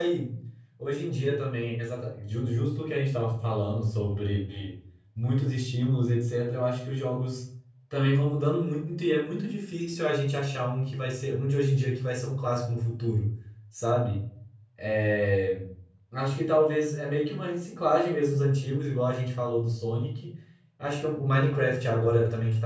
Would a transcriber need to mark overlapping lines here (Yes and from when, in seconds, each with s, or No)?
No